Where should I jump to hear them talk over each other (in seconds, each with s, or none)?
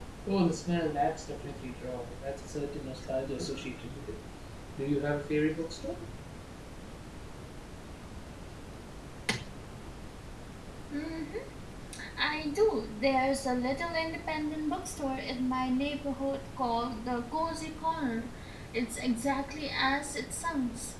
none